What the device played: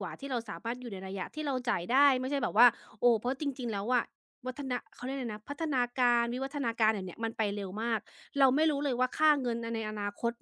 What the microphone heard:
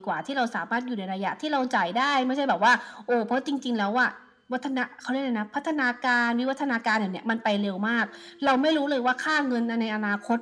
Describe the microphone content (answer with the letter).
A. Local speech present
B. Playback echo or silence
B